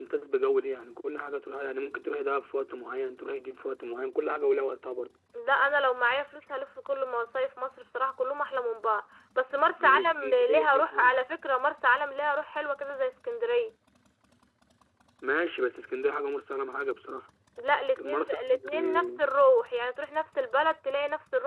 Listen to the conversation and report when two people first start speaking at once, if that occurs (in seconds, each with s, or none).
9.8 s